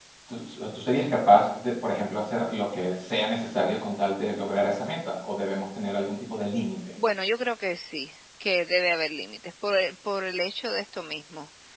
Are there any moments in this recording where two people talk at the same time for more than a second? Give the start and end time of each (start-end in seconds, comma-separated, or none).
none